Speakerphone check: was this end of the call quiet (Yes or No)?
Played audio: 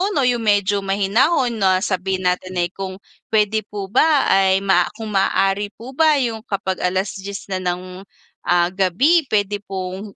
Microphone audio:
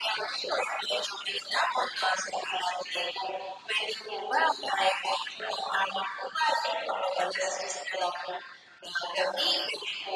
Yes